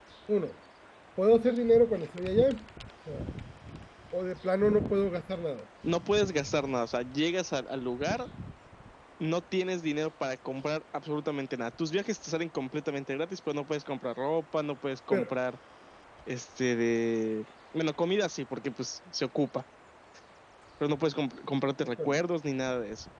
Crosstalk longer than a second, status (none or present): none